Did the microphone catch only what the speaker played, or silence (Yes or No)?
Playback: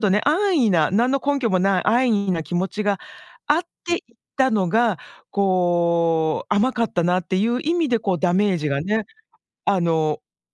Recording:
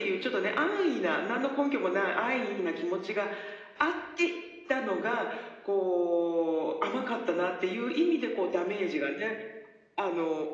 Yes